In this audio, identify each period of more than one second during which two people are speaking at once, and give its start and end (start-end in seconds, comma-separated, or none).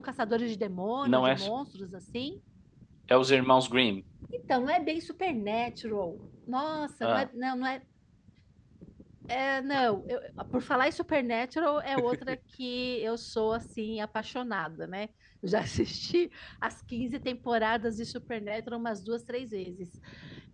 none